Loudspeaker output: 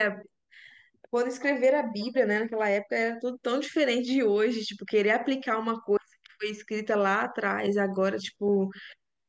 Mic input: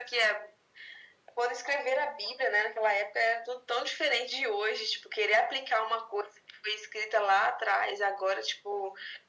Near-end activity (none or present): none